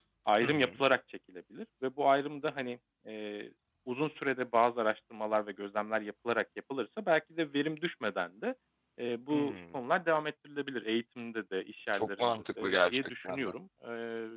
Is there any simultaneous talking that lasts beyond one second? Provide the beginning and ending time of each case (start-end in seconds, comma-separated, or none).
11.9-13.5